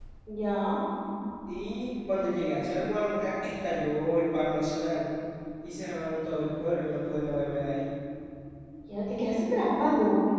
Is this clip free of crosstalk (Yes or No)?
Yes